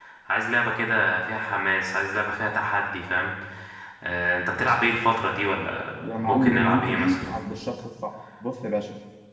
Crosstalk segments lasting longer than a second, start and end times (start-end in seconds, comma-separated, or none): 6.0-7.3